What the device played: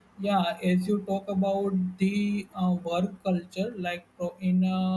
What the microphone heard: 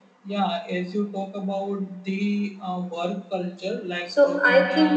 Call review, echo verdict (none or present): present